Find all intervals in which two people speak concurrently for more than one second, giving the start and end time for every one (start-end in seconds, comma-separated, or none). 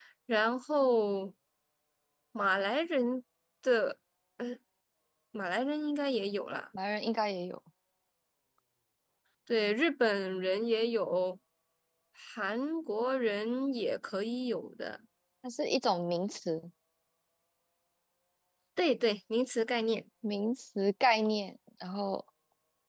none